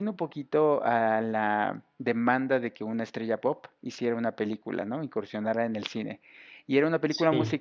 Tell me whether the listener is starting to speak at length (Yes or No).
No